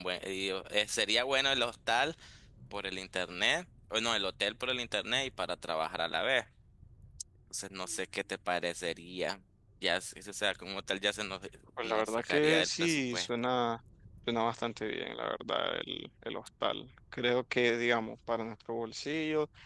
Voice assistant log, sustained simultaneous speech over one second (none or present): present